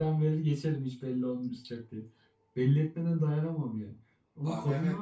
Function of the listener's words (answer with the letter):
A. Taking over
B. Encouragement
B